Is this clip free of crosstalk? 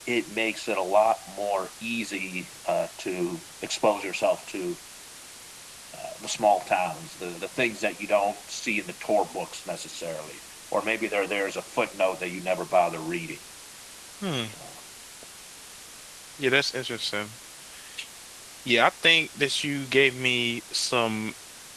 Yes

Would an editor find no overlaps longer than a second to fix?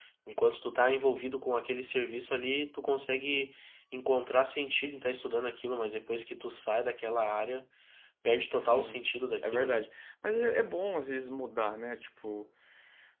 Yes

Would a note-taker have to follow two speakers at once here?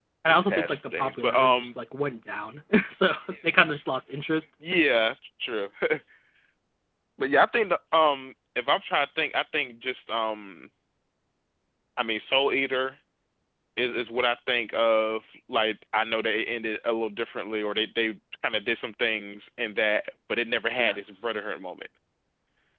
Yes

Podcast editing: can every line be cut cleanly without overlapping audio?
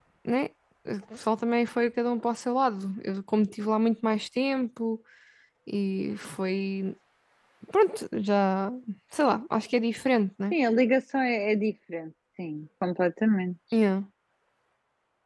Yes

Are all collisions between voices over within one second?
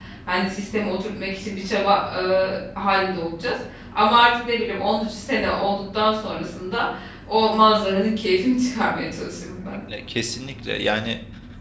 Yes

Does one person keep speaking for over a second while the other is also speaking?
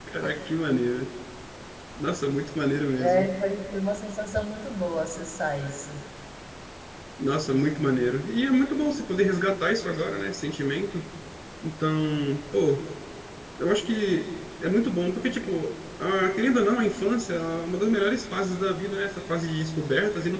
No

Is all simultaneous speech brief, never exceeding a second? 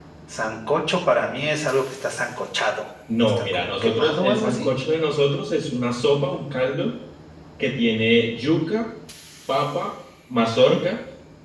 No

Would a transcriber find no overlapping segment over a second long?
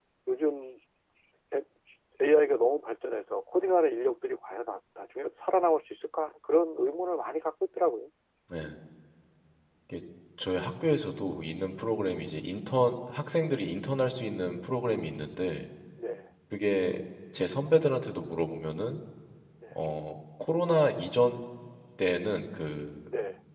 Yes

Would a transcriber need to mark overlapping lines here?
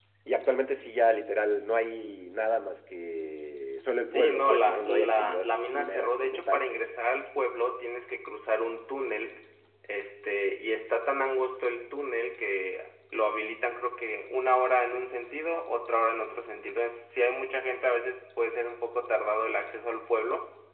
Yes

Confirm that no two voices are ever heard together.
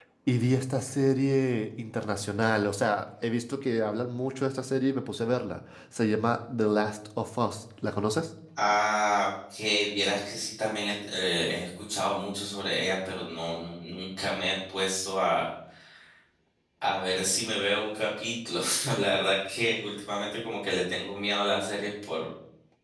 Yes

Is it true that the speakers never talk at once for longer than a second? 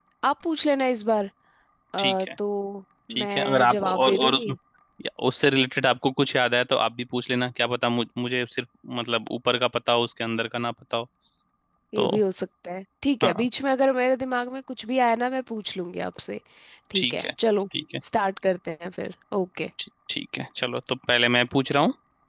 No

